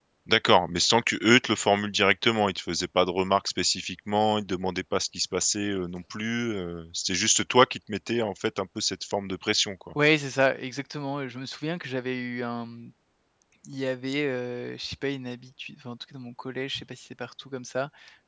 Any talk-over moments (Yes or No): No